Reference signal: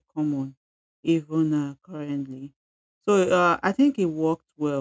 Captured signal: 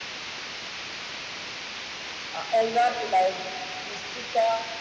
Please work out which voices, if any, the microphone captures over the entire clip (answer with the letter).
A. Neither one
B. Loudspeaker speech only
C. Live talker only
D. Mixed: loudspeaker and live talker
C